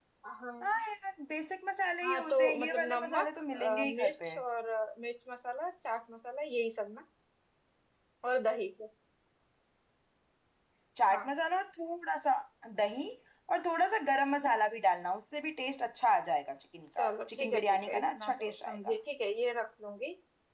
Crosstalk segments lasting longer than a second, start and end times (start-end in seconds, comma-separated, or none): 2.0-4.3, 17.0-18.9